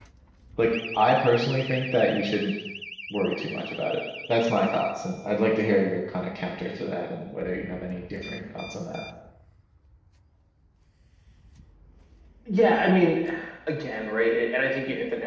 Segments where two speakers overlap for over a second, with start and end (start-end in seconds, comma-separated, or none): none